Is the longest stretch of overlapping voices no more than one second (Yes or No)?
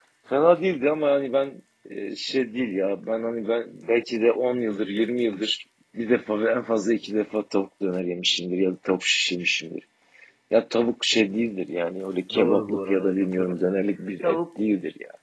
No